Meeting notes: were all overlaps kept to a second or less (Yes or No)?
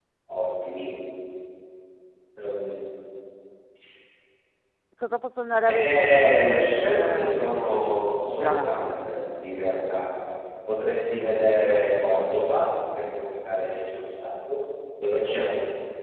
No